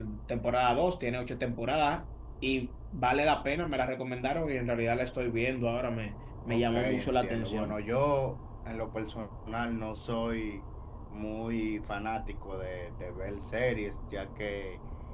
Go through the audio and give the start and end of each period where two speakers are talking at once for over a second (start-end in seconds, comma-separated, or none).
6.5-7.8